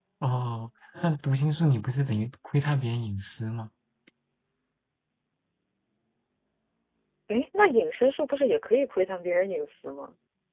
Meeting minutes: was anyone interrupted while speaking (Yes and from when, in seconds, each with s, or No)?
No